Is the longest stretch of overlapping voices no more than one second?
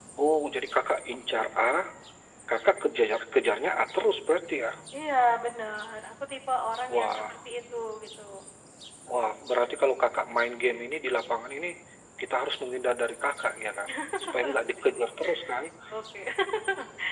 Yes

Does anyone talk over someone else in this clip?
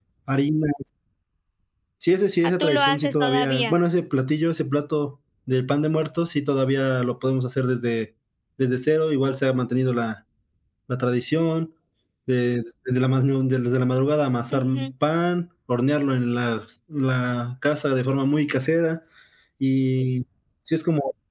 Yes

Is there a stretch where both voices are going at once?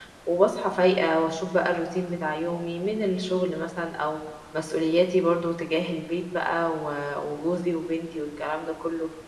No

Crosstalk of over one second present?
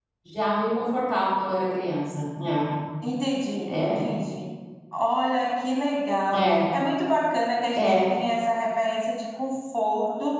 No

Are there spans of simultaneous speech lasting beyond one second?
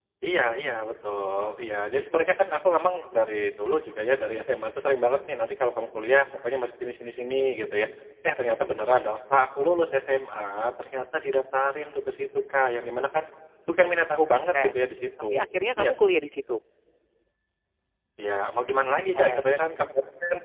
No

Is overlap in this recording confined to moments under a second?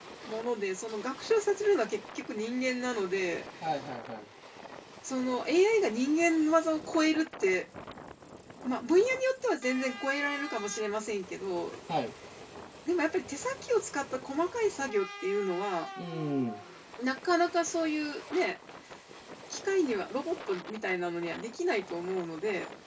Yes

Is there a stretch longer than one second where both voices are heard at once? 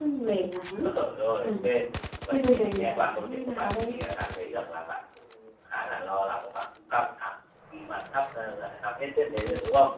Yes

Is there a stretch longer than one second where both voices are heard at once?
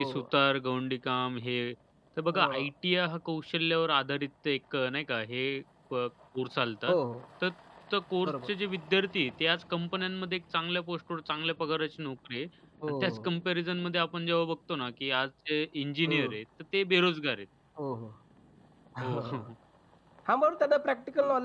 No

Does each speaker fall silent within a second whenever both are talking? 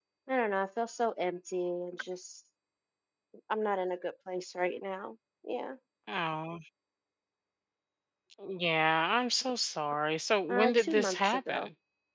No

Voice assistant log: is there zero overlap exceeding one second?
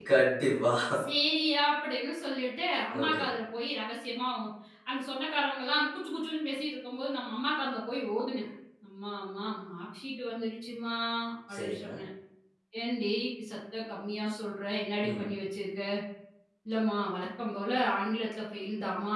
Yes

